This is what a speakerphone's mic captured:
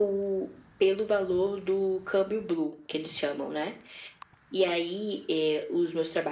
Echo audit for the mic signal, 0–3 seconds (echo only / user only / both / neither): echo only